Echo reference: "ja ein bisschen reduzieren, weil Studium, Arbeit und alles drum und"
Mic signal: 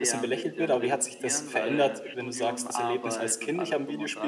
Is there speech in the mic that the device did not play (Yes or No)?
Yes